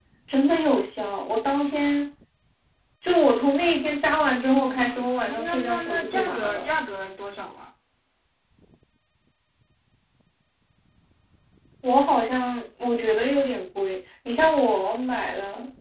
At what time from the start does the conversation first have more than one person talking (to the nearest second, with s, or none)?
5 s